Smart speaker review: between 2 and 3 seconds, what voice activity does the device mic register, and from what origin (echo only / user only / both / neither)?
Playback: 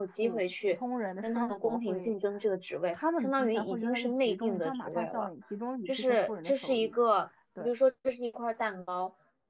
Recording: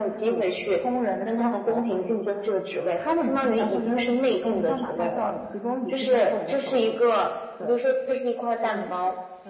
echo only